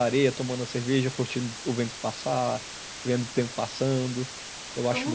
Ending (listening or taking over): taking over